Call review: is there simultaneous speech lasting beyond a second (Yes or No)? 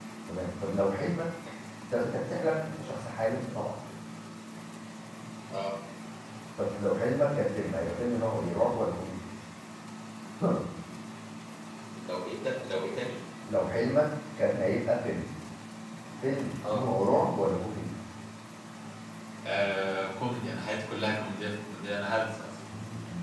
No